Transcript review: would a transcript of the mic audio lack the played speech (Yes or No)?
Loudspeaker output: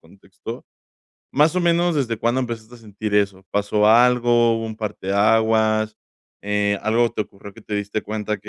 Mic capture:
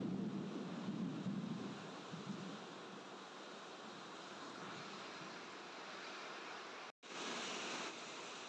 Yes